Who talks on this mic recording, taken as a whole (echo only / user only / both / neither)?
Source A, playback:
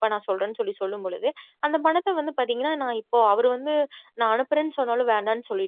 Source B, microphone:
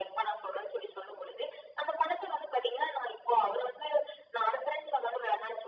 echo only